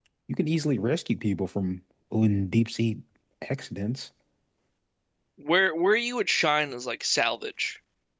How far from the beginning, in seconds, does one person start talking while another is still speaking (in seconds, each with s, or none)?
none